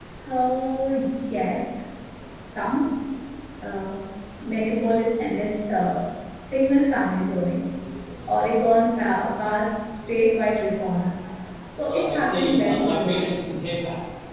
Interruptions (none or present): present